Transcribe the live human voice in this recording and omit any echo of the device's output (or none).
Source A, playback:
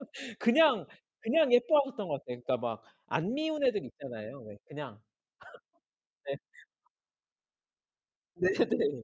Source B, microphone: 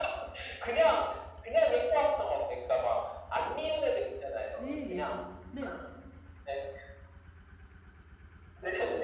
예예. 네.